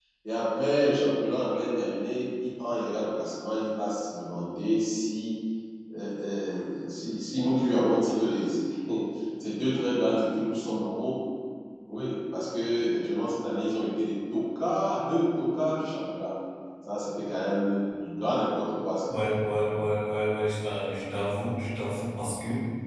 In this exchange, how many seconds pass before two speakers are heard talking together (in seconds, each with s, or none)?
none